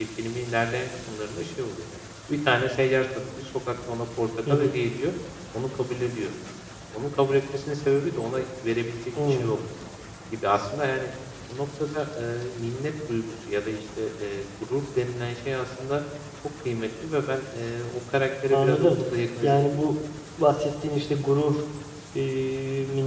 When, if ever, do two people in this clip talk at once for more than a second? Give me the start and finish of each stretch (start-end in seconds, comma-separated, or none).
none